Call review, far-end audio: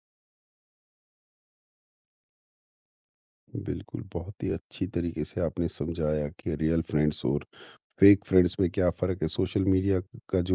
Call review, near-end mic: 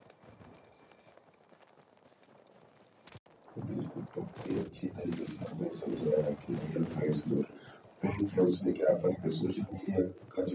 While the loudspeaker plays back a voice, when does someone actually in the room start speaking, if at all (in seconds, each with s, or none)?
none